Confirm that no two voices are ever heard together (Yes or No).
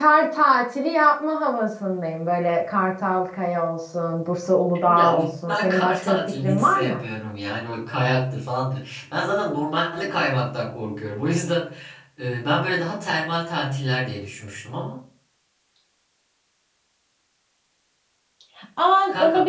No